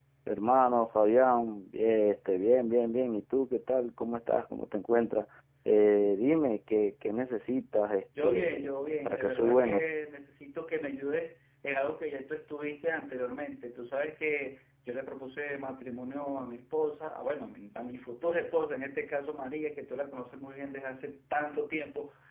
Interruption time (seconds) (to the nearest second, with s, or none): 8 s